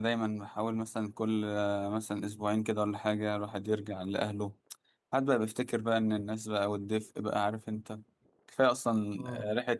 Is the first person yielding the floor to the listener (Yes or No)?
No